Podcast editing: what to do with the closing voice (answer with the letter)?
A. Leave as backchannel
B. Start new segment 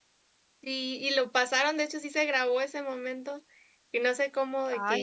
A